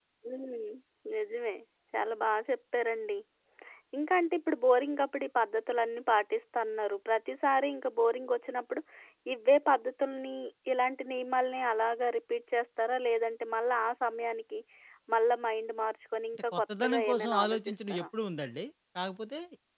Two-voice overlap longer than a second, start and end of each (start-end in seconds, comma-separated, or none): 16.4-18.0